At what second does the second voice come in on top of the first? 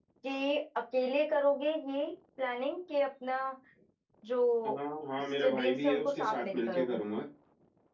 5.4 s

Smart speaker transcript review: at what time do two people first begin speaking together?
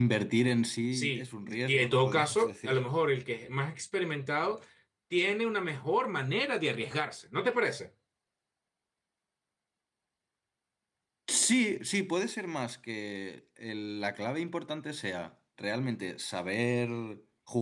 0.9 s

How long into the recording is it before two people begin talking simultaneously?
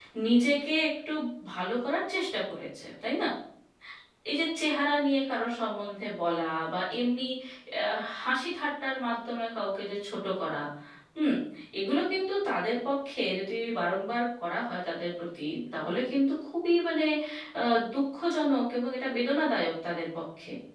none

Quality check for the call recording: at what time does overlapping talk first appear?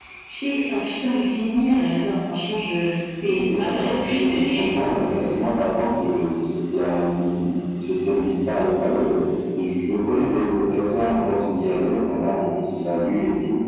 3.3 s

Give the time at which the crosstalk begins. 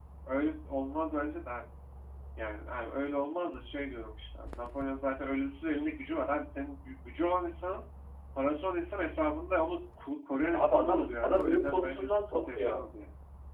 10.5 s

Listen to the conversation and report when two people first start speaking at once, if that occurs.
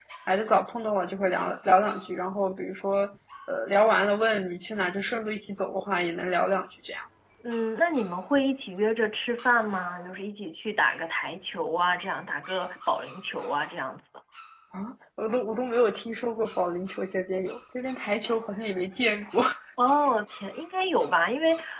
none

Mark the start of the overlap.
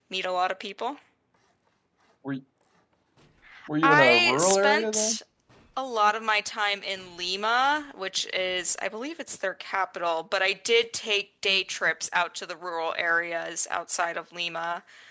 3.8 s

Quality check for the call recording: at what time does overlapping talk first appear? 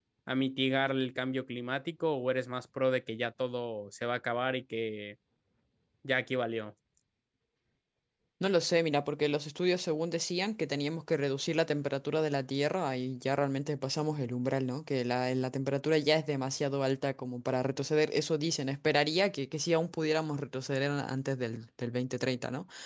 none

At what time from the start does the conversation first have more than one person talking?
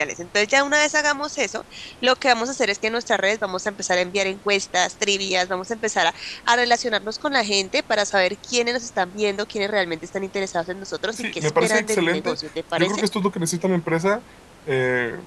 11.1 s

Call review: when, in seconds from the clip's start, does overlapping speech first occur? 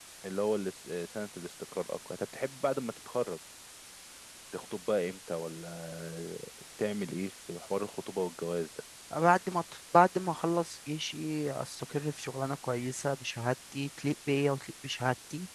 none

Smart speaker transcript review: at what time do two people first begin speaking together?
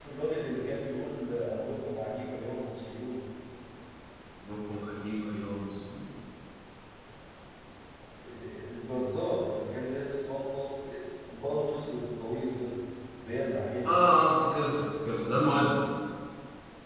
none

